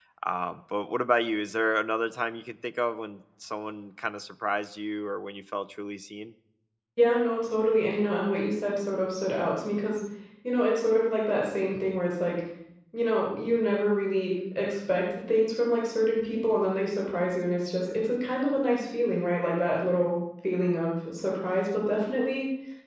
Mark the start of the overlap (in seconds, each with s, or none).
none